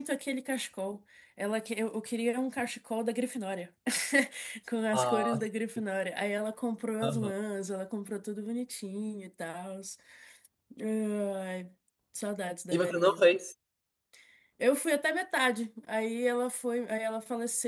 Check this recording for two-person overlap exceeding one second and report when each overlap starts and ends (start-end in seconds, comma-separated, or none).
none